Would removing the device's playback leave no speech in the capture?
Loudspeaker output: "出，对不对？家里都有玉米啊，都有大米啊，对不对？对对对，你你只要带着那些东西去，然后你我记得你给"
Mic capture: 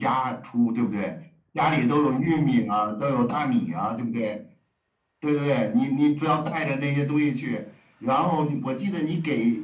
Yes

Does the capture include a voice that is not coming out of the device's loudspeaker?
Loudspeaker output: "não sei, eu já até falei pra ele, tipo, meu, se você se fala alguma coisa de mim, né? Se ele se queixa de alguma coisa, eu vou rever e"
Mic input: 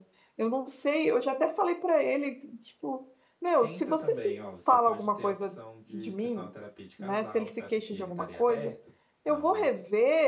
Yes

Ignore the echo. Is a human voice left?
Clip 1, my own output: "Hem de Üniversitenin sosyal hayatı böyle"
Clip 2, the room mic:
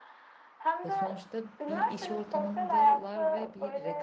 Yes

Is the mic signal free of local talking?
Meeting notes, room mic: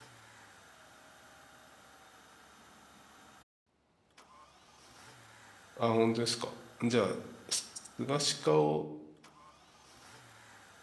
No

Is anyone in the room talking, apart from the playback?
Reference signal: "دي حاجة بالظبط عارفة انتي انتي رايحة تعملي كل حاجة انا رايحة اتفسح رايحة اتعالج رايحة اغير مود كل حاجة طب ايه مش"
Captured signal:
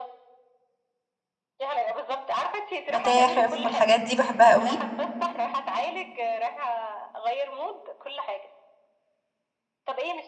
Yes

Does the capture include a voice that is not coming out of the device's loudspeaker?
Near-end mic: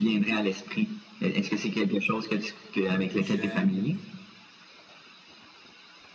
Yes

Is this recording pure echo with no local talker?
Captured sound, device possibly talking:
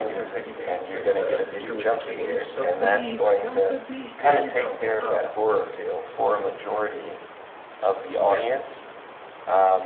No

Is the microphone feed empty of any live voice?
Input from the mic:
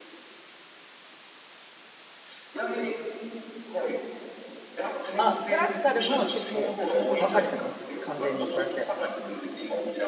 No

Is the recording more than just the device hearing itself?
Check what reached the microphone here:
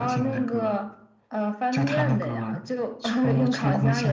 No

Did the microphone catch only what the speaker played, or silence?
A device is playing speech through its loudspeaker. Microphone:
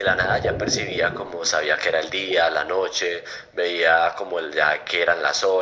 Yes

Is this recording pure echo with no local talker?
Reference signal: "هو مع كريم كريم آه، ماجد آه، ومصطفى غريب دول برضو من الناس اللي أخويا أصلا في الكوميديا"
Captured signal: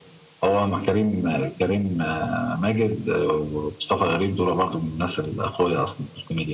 Yes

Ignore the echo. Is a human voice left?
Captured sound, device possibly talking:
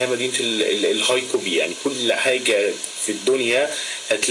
No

